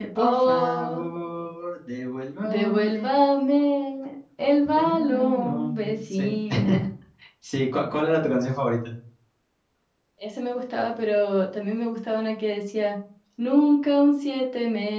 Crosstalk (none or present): present